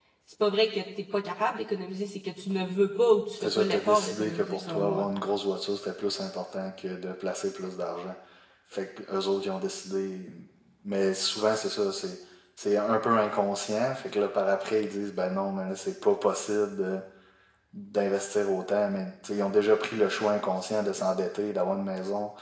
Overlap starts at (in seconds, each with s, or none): 3.4 s